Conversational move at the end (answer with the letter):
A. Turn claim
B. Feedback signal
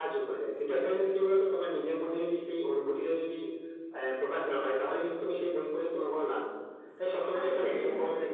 B